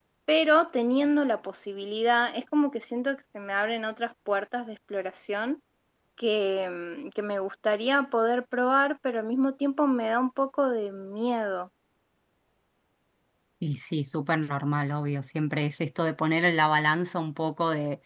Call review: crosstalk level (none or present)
none